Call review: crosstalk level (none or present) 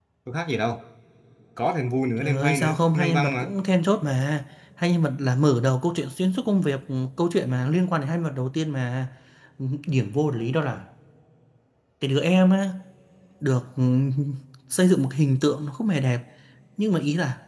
present